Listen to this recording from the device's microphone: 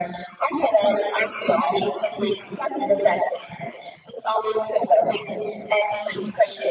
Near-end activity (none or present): none